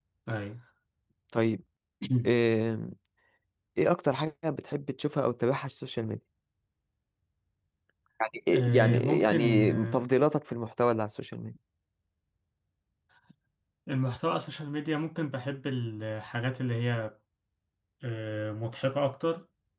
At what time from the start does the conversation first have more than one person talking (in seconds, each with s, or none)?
8.5 s